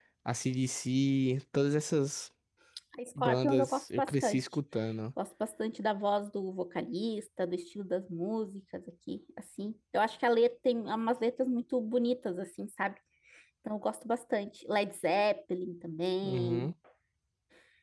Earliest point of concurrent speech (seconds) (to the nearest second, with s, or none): 3 s